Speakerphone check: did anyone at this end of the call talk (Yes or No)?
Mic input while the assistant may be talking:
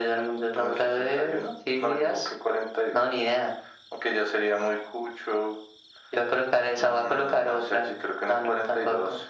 No